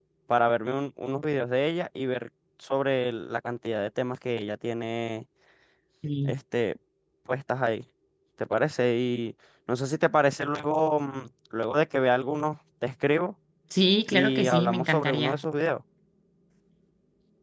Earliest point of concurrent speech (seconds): 14.1 s

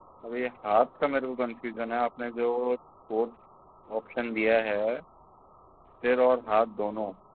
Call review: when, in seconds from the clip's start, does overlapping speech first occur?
none

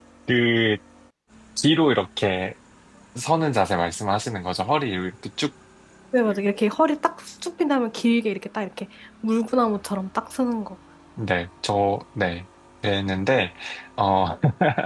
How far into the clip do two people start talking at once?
none

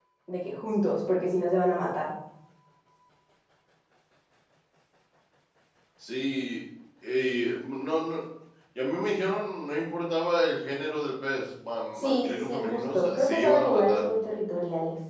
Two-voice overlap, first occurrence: 12.0 s

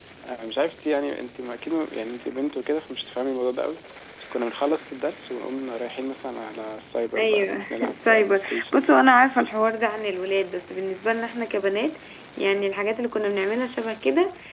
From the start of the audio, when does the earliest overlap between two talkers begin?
7.2 s

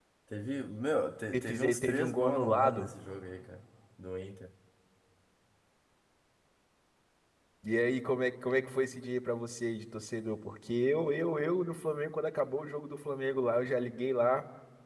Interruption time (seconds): 1.3 s

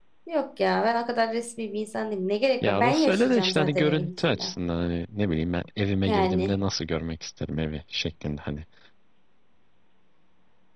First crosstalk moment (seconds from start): 2.7 s

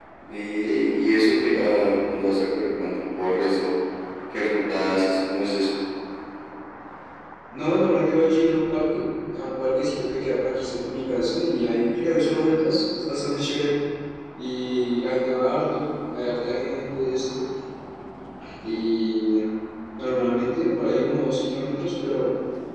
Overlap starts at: none

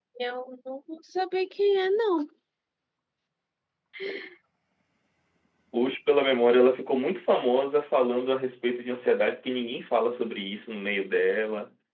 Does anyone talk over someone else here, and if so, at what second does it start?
none

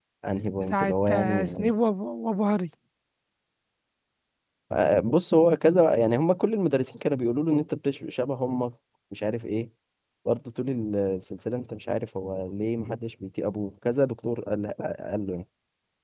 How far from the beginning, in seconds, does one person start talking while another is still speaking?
0.5 s

